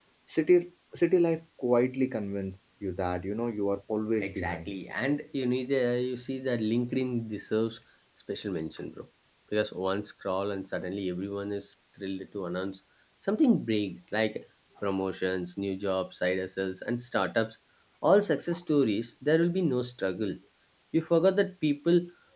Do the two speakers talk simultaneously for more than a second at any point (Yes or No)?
No